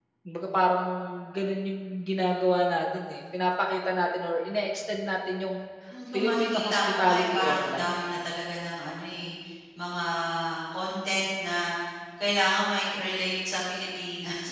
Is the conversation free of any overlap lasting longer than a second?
No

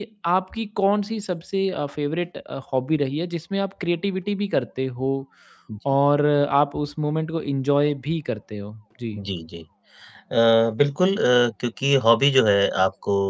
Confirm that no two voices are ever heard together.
Yes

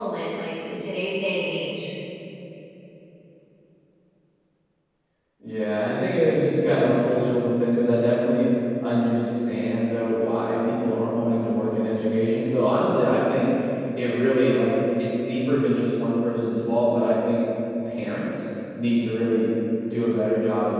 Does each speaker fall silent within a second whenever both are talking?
Yes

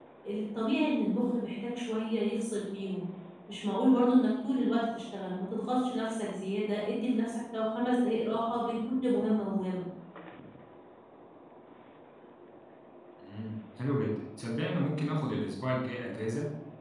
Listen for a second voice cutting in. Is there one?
No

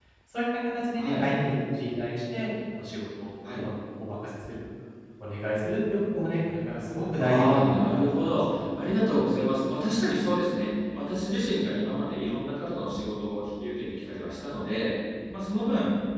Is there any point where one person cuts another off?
Yes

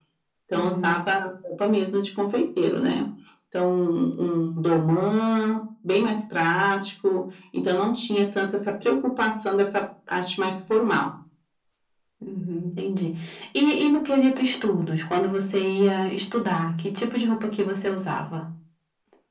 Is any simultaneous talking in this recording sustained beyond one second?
No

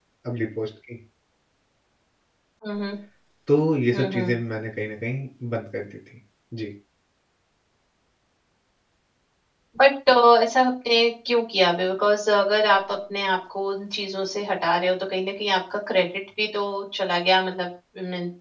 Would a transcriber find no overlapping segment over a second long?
Yes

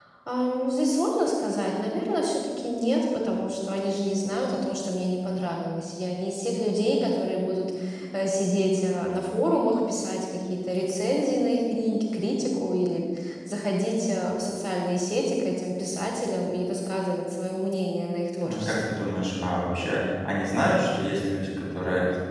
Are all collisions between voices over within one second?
Yes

